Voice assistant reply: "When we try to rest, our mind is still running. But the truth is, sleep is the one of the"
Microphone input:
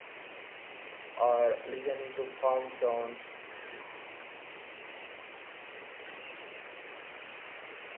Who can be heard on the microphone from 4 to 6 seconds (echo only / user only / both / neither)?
neither